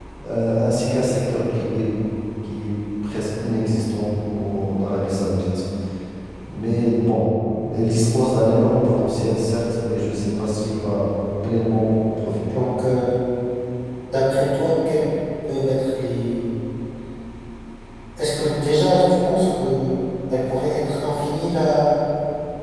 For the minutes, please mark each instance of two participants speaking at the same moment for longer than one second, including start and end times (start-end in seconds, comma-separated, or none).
none